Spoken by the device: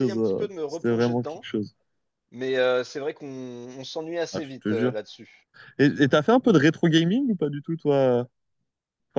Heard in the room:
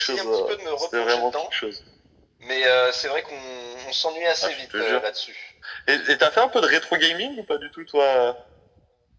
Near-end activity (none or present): none